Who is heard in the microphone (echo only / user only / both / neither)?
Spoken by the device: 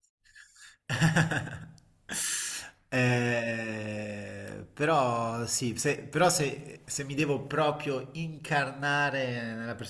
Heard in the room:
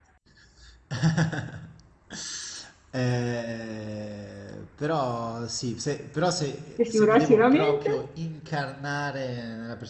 both